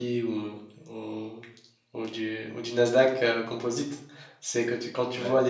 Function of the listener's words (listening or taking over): listening